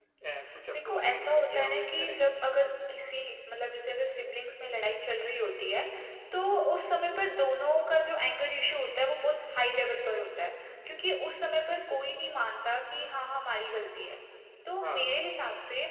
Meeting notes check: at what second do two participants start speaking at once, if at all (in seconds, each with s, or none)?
0.7 s